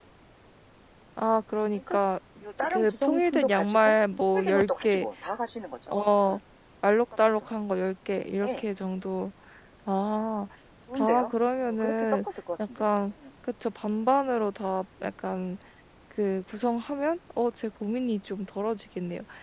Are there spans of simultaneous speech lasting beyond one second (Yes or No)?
Yes